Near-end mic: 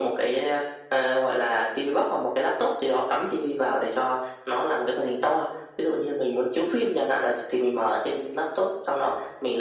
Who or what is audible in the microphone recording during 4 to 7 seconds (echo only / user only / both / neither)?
echo only